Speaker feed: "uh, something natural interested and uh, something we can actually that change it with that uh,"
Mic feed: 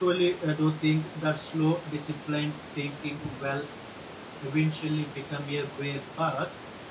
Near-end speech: present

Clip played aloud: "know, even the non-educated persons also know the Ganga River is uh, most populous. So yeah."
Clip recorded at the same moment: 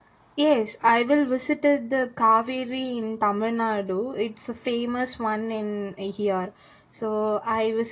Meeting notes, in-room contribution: present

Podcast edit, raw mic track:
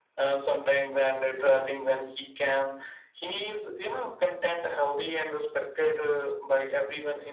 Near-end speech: none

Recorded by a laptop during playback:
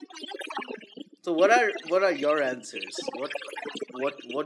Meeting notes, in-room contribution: present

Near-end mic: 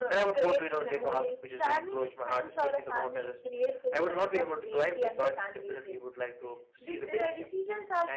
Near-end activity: none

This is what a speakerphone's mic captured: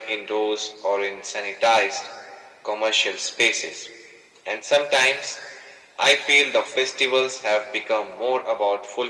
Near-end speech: none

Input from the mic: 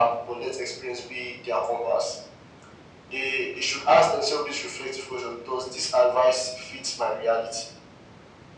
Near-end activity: none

